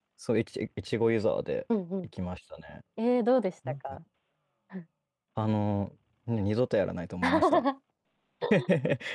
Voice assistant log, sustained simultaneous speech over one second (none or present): none